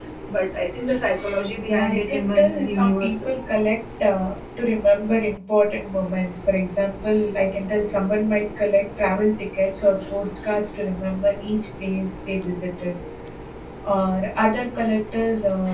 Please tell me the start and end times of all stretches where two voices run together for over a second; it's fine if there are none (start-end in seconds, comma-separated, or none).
1.7-3.3